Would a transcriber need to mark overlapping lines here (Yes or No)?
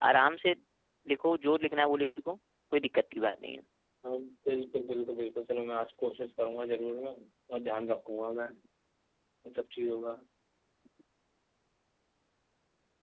No